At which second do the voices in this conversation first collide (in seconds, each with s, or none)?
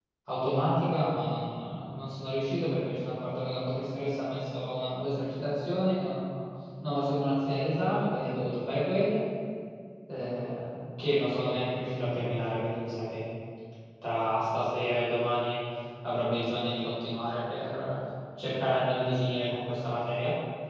none